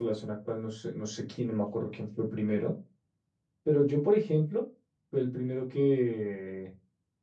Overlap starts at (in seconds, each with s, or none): none